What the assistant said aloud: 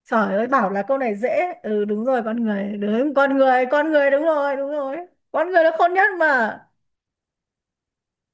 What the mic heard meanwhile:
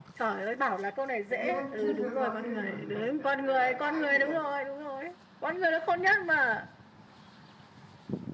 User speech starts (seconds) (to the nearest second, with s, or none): 1 s